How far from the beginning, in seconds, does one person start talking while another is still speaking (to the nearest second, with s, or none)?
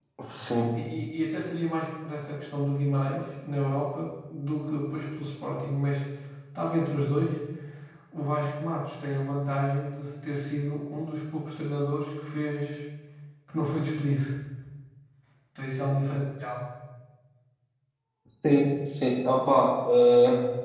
none